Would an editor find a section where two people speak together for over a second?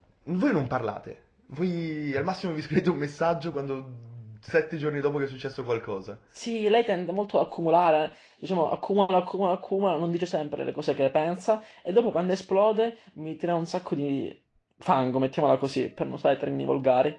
No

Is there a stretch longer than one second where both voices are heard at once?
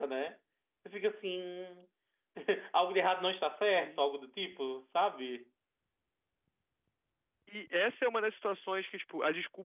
No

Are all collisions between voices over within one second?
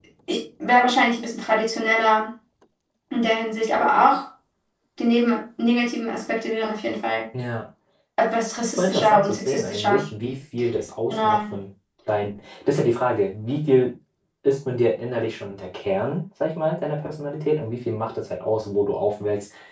No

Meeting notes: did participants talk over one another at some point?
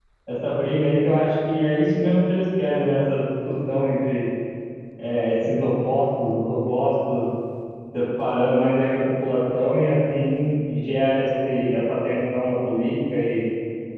No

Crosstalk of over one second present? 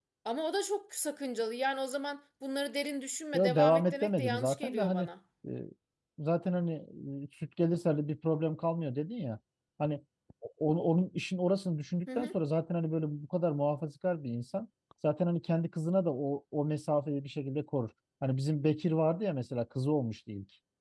Yes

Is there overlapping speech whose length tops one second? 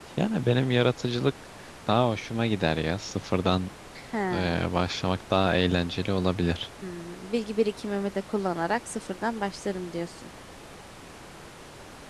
No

